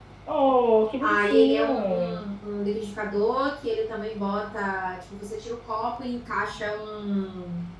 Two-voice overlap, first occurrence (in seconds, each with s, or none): 1.0 s